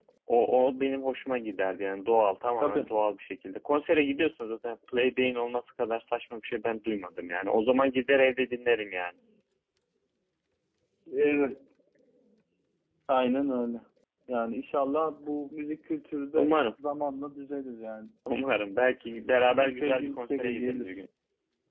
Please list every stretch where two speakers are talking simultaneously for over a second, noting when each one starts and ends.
19.5-21.0

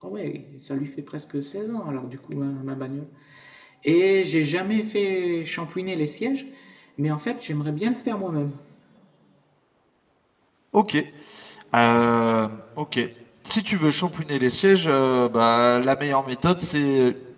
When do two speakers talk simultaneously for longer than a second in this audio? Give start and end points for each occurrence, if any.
none

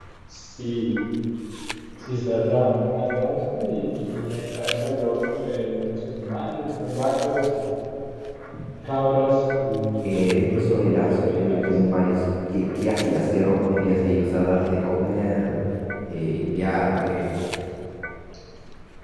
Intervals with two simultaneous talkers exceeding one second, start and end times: 10.1-11.7

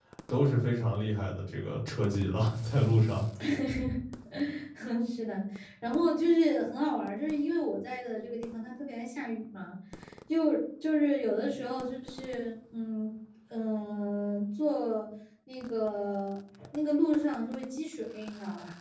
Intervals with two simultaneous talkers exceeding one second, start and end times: none

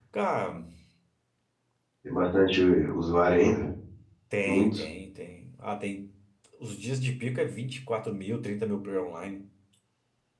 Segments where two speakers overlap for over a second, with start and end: none

